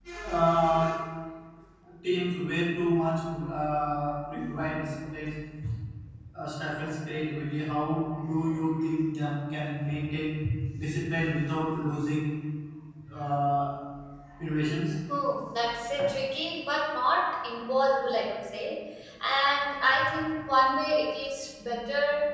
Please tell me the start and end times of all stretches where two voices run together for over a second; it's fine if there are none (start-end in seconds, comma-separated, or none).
none